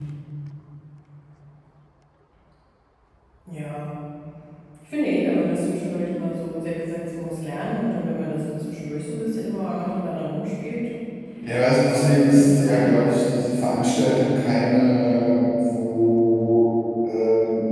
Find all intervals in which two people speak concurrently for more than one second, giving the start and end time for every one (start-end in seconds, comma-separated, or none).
11.8-13.2